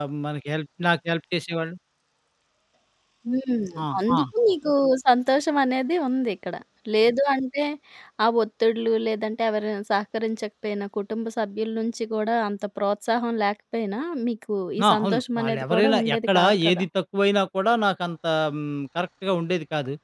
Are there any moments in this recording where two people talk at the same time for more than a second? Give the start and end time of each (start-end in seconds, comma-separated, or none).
14.9-16.9